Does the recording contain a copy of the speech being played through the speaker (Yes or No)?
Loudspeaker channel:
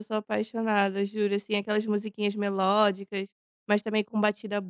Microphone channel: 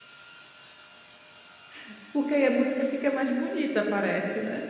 No